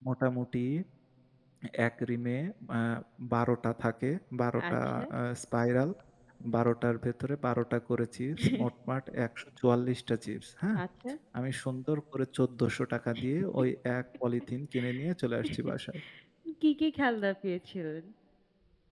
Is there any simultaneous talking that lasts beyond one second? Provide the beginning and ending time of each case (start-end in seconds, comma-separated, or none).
none